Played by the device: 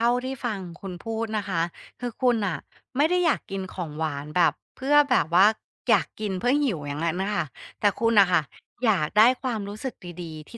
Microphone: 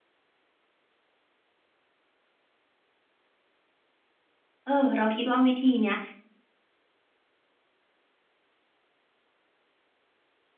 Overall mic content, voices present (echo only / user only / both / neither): user only